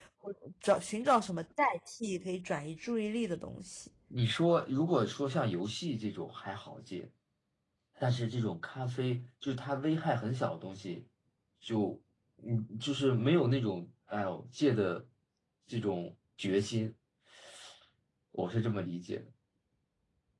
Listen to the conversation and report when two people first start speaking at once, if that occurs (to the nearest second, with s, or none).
none